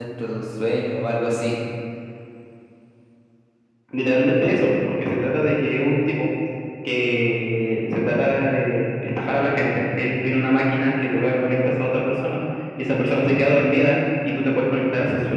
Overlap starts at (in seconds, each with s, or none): none